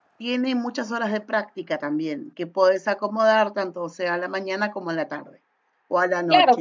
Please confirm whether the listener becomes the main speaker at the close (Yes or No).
Yes